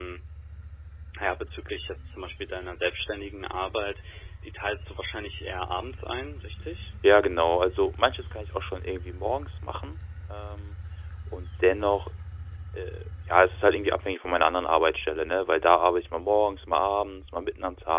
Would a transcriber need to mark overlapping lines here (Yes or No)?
No